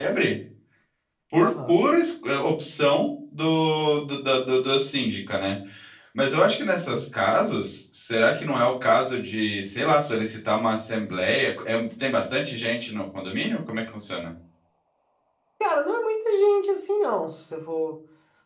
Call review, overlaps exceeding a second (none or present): none